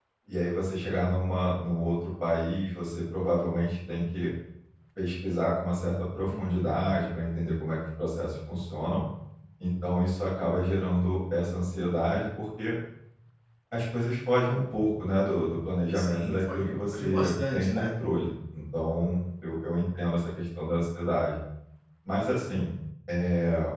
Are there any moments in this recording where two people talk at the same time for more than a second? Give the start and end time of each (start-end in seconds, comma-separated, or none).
15.9-17.9